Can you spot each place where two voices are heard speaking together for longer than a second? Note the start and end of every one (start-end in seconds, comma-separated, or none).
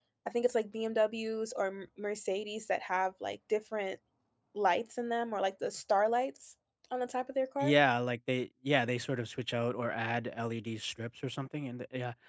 none